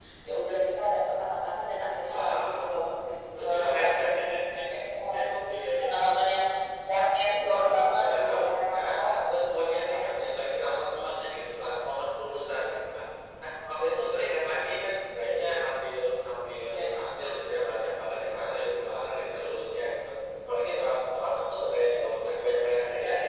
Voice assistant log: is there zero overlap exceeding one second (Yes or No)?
No